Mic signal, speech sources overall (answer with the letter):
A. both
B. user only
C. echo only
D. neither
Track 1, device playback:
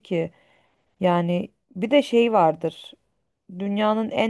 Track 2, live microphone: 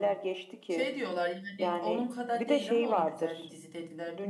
A